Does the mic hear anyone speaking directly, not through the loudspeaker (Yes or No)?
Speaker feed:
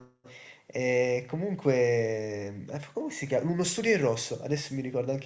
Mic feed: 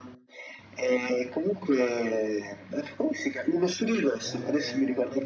Yes